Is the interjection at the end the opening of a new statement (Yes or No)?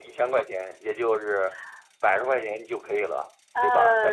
Yes